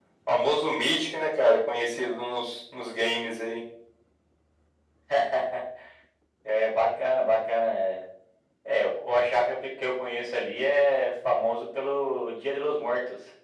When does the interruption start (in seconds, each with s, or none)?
none